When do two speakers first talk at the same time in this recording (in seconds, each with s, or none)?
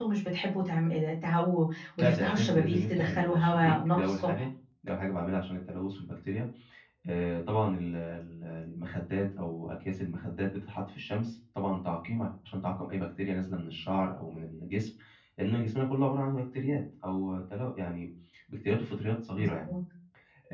2.0 s